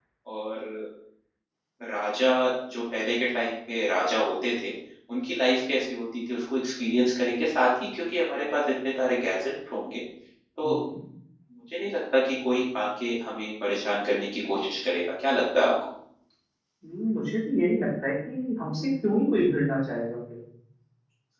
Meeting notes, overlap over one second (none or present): none